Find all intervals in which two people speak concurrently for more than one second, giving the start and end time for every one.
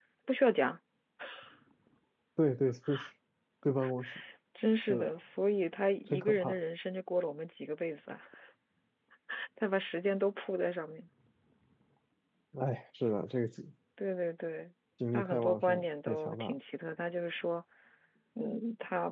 15.1-16.6

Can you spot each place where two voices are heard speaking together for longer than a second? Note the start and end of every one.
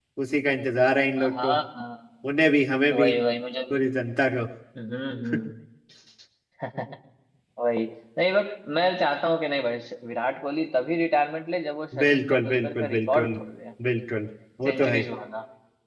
12.0-13.3

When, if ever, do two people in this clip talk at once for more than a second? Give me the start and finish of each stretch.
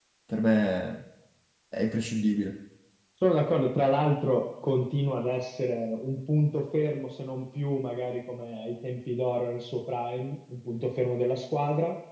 none

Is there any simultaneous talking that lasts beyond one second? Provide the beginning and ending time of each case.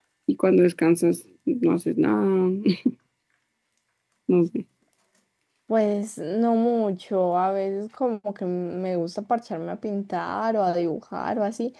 none

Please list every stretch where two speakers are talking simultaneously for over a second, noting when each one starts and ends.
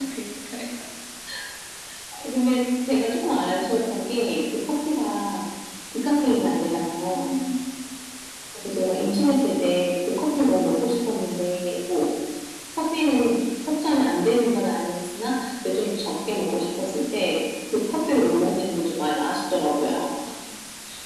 none

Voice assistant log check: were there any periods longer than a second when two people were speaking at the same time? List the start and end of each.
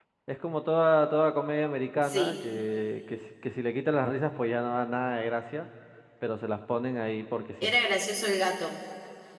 none

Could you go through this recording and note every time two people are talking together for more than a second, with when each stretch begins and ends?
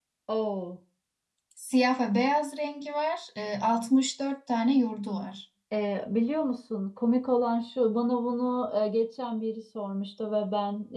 none

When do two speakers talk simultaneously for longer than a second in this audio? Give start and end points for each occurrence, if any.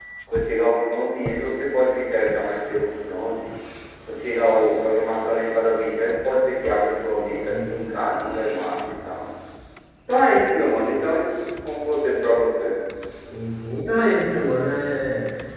none

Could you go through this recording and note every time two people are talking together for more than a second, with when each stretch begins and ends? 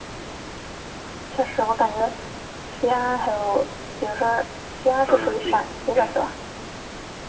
5.1-6.3

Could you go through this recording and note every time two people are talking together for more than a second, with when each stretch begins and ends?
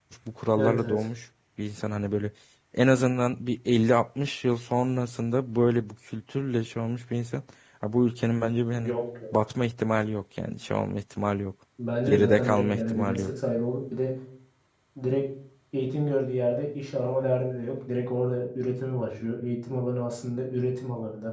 12.1-13.3

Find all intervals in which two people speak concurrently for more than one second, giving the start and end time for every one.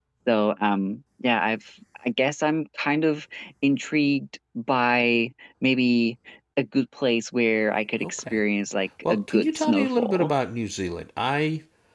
9.1-10.3

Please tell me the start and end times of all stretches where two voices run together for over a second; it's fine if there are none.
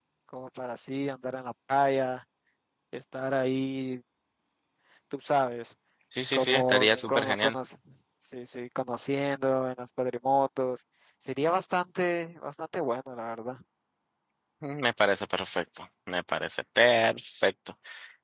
6.3-7.5

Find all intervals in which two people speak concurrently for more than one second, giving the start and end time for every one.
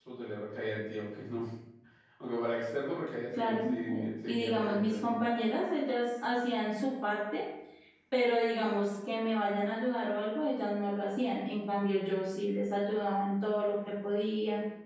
3.3-5.2

